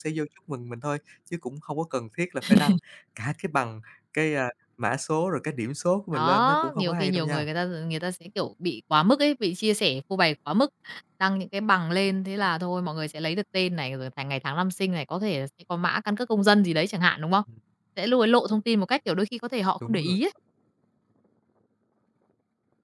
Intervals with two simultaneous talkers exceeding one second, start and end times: 6.1-7.5

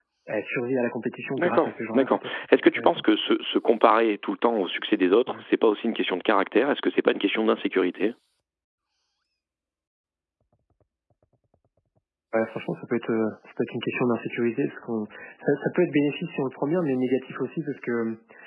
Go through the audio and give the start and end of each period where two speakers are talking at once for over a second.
1.4-3.0

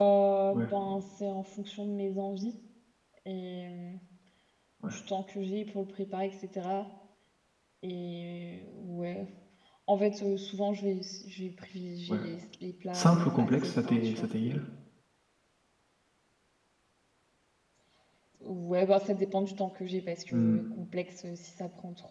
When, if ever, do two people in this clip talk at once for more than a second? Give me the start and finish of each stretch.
12.9-14.3

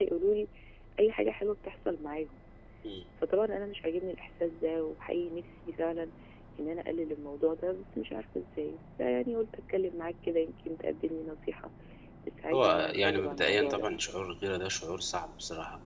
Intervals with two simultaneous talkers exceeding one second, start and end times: 12.5-13.9

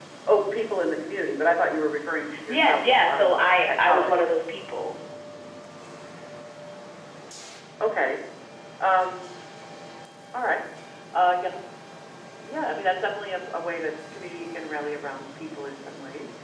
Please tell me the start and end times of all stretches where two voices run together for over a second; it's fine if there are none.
2.5-4.2

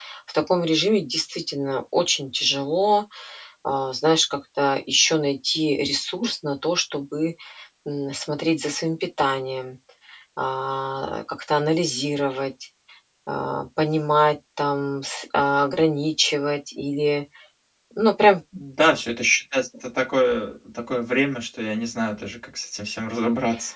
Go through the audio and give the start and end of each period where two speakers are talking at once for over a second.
none

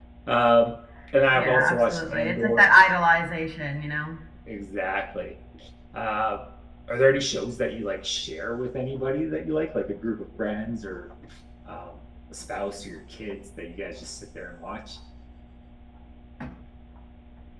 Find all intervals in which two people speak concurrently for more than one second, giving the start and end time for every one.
1.3-2.7

